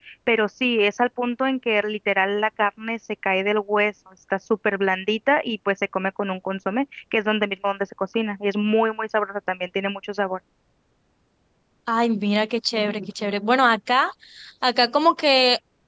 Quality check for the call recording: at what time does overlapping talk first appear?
none

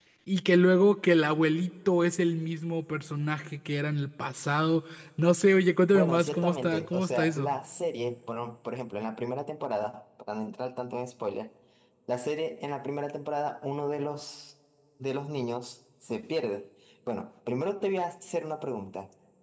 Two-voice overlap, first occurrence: 5.9 s

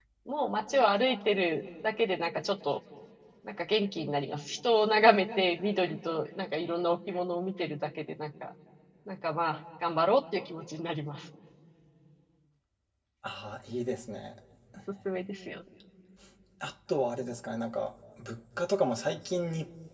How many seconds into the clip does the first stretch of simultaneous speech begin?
none

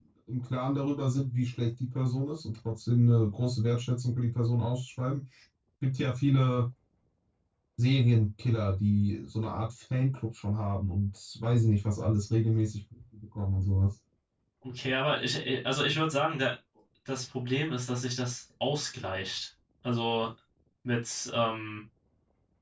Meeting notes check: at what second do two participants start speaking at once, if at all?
none

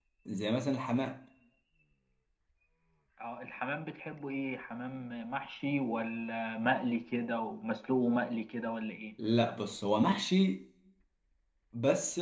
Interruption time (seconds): none

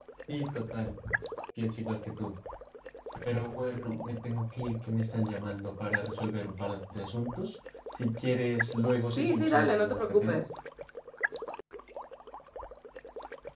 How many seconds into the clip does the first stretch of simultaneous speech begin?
9.1 s

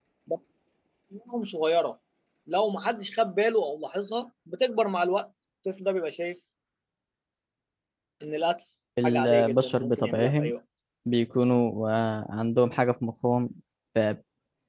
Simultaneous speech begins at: 9.0 s

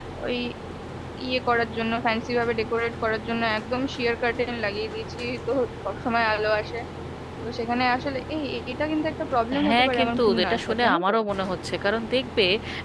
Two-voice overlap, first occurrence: 9.5 s

